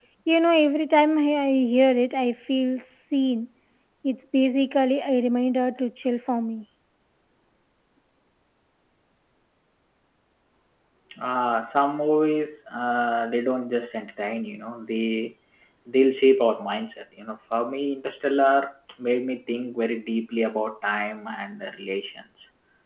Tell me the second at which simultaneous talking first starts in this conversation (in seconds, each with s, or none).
none